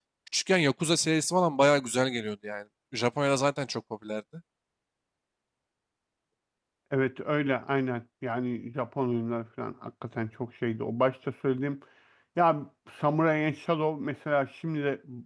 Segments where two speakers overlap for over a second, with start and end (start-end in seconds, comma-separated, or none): none